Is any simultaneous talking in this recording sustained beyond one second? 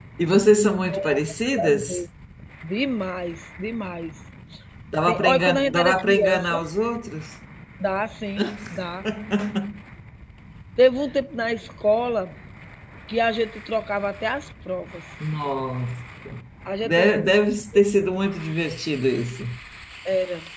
Yes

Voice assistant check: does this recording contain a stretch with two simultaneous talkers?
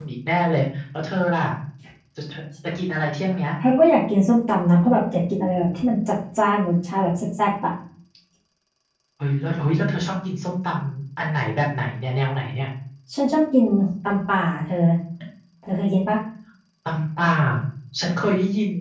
No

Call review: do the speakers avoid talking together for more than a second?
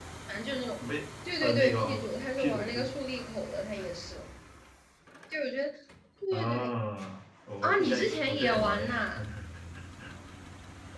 No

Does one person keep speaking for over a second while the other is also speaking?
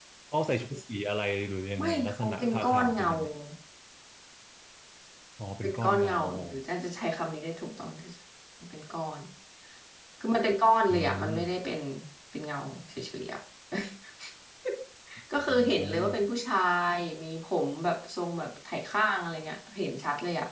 Yes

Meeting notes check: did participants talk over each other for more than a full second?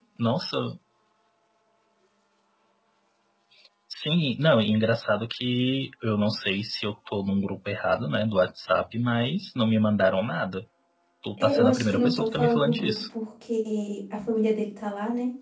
Yes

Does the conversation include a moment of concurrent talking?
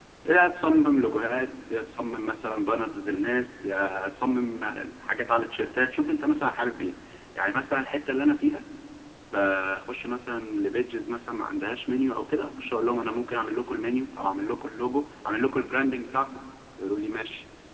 No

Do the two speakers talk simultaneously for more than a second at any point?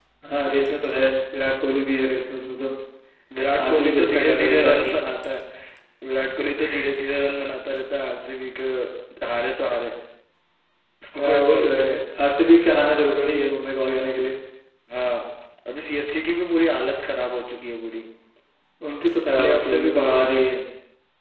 Yes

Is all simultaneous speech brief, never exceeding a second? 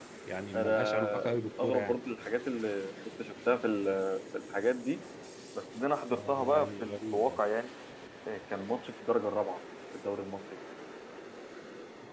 No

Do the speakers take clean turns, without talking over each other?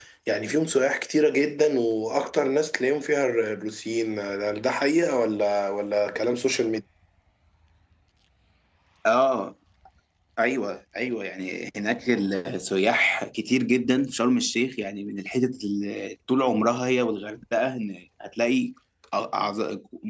Yes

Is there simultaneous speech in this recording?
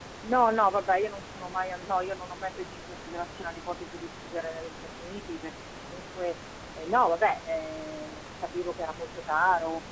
No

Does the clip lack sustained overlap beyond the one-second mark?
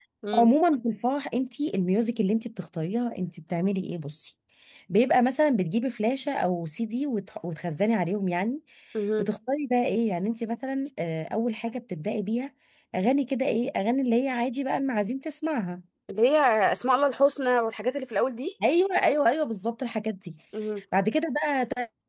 Yes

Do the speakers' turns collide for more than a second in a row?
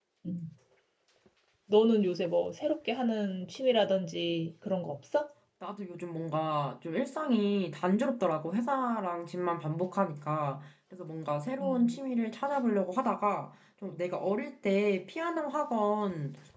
No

